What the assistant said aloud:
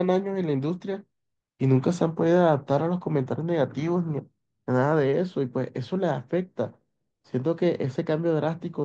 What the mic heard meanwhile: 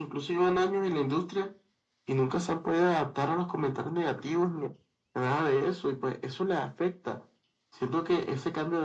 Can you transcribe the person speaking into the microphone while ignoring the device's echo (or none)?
none